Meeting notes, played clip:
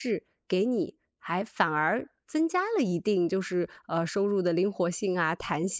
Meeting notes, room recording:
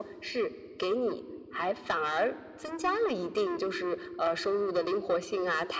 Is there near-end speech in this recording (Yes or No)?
No